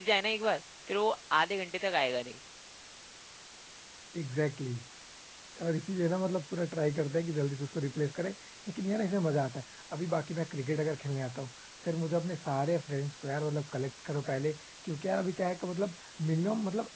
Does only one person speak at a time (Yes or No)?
Yes